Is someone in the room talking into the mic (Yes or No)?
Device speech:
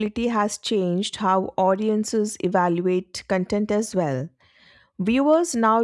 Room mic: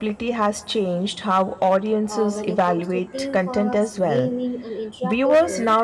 Yes